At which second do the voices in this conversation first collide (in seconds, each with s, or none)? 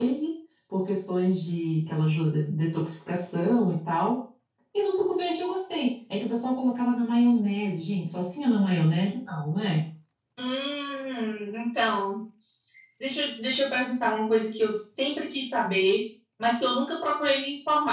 none